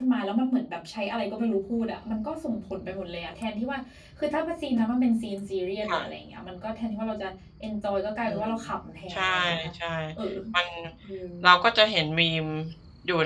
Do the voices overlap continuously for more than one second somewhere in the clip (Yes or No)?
No